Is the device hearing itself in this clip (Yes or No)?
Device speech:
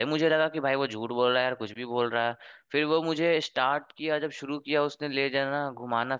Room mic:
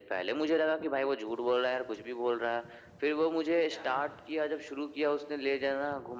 Yes